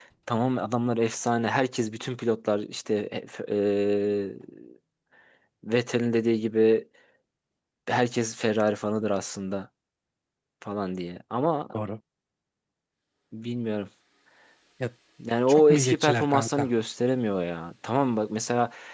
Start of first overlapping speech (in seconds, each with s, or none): 15.5 s